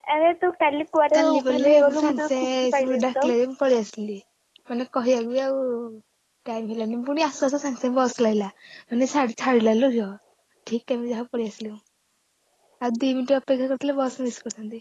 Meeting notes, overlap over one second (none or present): present